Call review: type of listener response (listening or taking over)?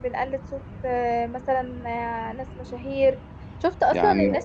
listening